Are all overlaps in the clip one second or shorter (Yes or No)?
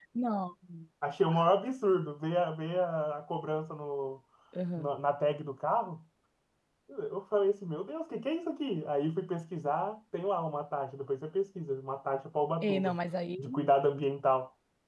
Yes